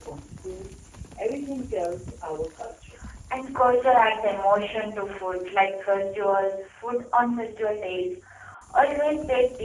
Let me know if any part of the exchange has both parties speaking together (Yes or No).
No